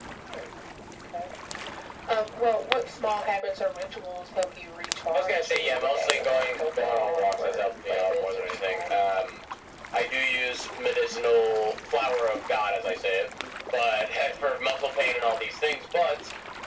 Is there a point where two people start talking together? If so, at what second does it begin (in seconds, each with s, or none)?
5.1 s